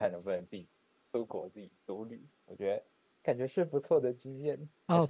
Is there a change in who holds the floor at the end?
Yes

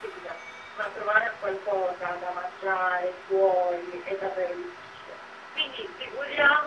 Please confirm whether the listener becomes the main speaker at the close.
No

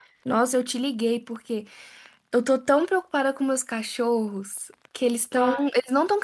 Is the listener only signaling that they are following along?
Yes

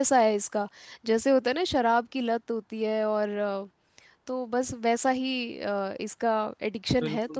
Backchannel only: No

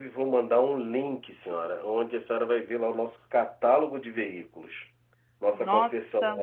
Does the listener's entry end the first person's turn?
No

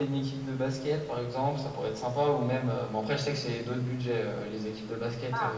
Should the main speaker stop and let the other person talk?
No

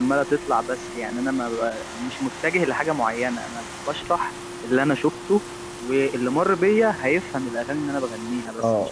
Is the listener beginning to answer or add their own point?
Yes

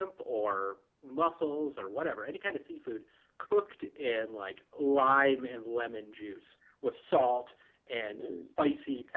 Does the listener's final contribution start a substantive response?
No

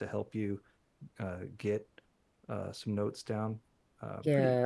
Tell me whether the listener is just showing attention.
No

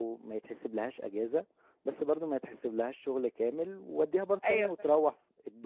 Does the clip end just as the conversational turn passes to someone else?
No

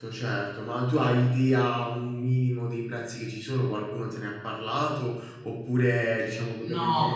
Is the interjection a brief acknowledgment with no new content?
No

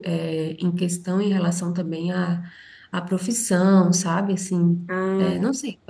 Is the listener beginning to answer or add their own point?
No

